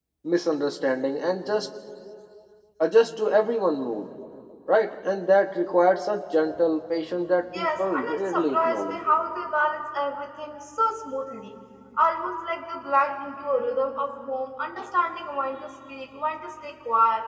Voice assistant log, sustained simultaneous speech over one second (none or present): present